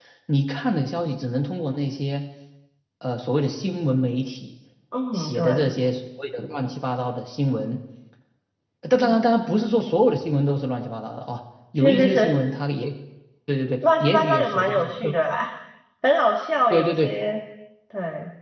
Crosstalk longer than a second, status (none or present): present